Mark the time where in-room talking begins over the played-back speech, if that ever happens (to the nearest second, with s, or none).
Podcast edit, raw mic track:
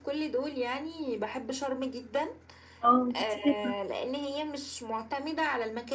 3 s